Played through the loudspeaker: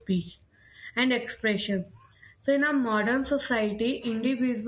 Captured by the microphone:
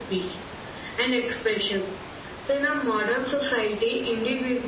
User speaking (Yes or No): No